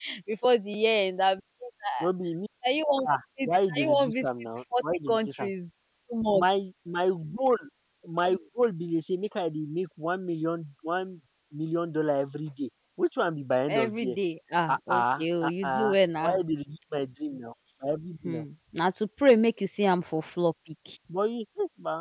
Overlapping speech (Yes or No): Yes